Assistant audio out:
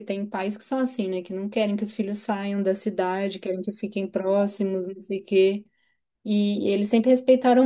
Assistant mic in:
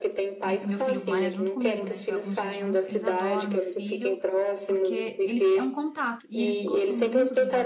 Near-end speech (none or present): present